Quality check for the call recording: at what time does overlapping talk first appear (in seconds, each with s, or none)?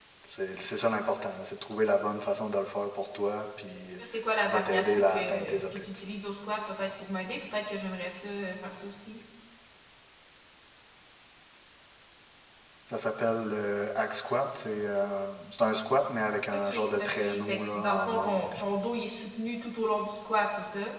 4.4 s